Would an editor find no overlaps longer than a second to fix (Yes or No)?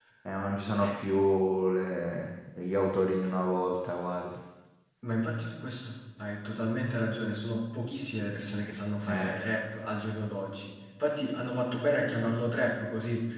Yes